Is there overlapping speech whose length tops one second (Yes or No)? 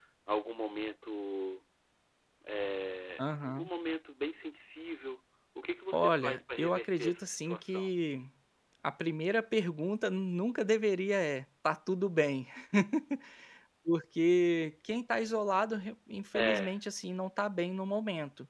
Yes